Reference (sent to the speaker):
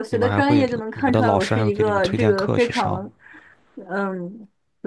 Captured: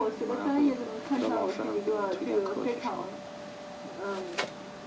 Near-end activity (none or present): none